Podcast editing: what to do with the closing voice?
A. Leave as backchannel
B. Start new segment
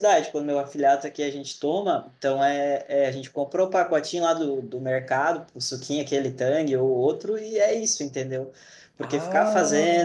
A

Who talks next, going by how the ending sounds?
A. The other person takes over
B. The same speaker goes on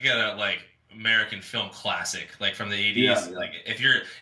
B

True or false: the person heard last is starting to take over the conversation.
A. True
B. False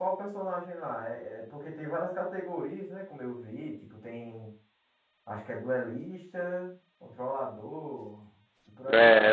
A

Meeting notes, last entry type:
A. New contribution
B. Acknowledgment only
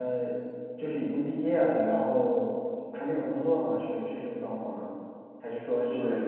A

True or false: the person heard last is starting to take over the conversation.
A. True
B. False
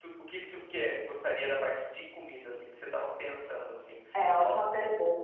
A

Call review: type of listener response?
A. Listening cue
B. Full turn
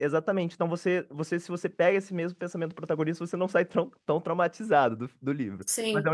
B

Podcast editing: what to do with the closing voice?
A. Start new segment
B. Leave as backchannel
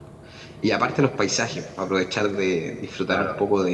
B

